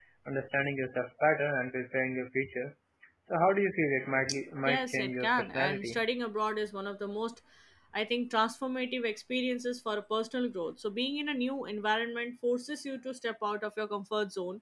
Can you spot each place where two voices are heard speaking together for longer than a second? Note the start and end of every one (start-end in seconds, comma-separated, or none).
4.6-6.0